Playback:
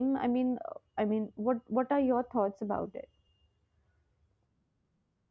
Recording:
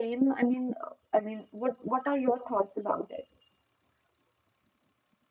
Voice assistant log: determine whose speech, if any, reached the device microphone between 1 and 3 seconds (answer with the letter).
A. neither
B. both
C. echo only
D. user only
C